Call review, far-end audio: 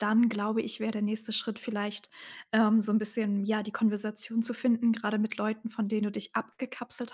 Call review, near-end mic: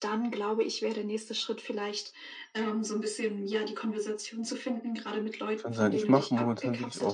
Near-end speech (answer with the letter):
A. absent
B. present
B